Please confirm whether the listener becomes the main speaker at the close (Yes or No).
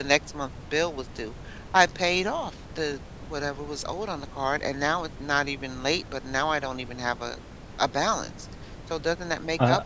Yes